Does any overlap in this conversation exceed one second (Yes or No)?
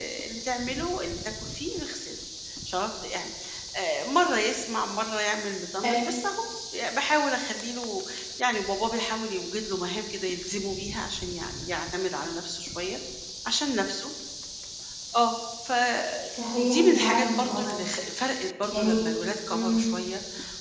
Yes